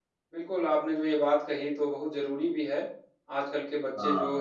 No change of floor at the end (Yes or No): Yes